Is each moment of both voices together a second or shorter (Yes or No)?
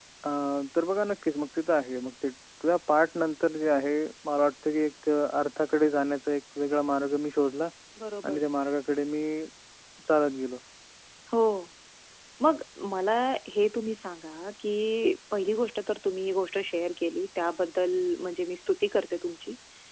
Yes